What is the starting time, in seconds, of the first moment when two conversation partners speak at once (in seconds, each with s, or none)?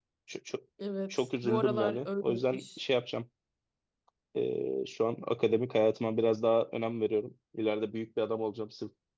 1.1 s